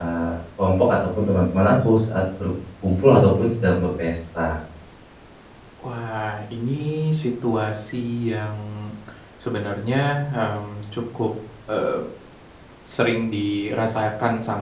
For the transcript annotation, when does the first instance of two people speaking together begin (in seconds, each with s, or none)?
none